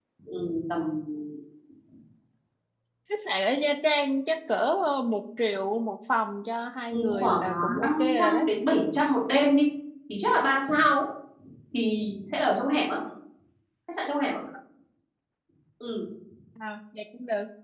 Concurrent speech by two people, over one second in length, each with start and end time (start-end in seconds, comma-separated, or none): 6.9-8.4